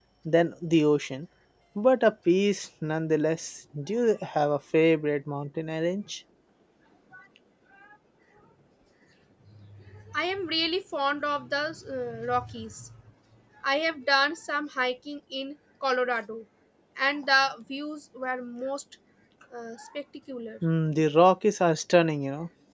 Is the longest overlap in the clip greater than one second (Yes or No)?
No